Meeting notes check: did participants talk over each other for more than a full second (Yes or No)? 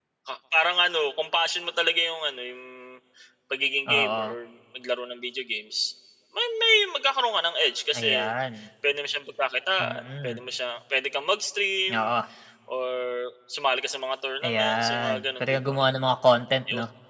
Yes